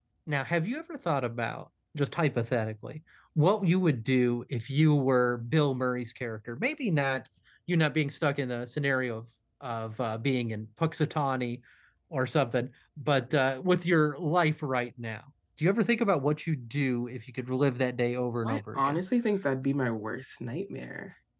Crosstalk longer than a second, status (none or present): none